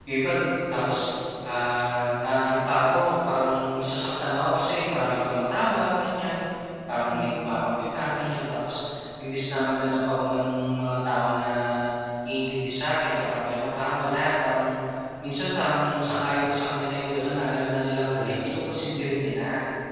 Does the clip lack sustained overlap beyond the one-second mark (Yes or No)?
No